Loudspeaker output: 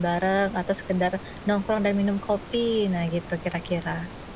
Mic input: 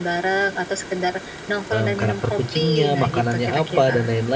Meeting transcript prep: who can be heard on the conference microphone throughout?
both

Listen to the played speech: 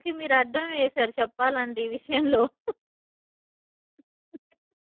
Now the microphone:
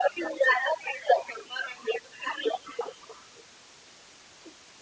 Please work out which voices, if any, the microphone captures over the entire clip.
echo only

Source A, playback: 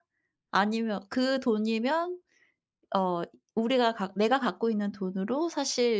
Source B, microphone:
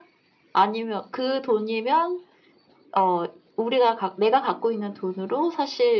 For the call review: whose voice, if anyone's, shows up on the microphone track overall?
echo only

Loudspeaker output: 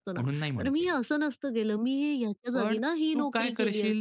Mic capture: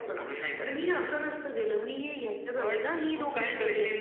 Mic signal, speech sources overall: echo only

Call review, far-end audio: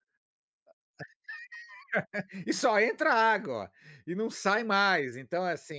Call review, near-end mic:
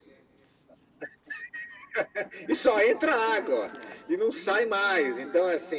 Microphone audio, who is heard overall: echo only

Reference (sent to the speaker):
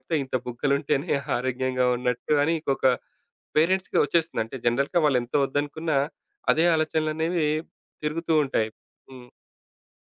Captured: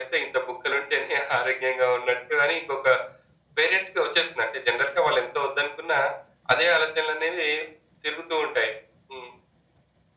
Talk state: echo only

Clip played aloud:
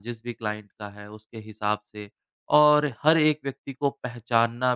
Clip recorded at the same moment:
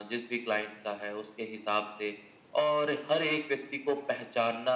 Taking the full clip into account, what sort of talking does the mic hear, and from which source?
echo only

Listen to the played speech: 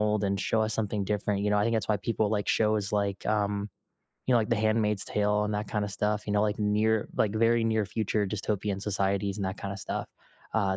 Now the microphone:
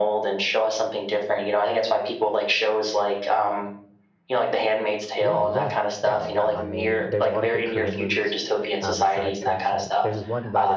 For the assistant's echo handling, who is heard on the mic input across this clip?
both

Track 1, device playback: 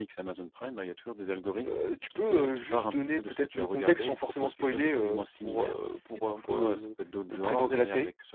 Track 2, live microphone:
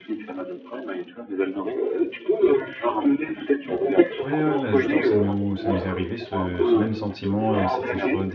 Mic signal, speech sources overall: both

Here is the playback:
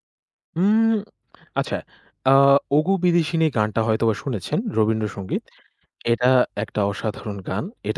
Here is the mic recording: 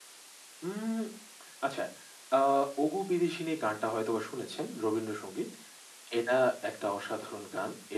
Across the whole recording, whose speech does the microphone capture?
echo only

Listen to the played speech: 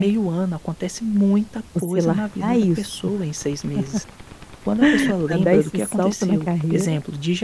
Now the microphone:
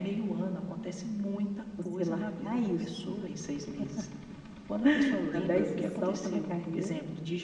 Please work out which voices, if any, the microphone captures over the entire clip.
echo only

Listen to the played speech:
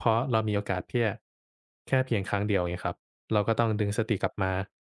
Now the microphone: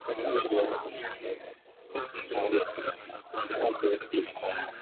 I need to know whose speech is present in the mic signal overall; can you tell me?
both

